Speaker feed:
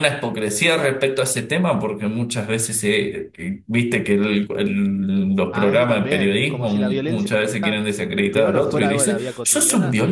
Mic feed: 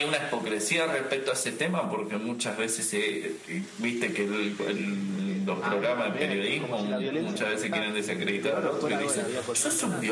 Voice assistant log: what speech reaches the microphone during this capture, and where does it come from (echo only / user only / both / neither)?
both